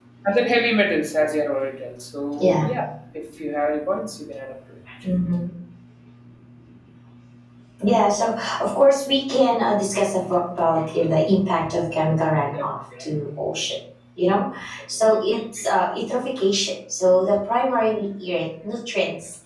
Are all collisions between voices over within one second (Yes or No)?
Yes